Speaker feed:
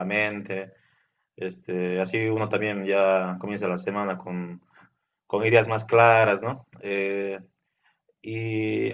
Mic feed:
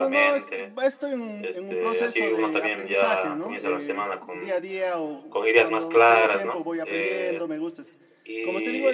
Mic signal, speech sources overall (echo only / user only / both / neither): both